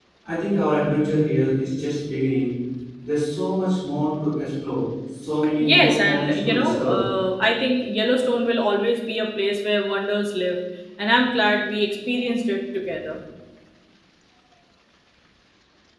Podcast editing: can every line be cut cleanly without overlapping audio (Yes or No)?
No